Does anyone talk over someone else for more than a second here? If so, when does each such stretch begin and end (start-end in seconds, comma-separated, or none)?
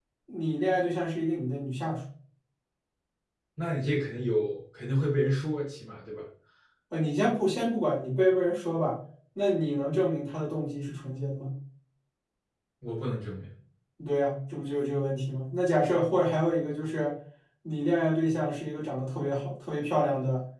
none